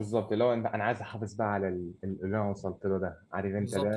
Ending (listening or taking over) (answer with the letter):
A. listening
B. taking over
B